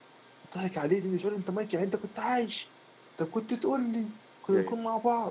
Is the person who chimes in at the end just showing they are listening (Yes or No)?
Yes